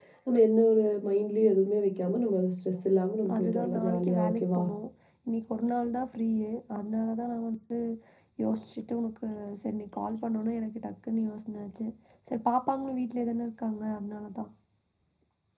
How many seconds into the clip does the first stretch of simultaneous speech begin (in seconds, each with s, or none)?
3.2 s